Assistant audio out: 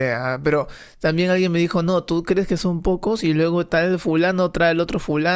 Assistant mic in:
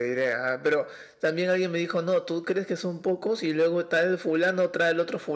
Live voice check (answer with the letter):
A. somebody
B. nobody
B